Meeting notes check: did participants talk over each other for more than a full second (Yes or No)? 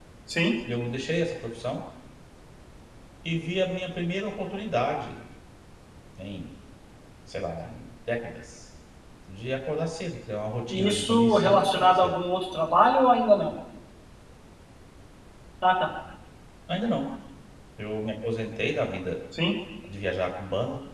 Yes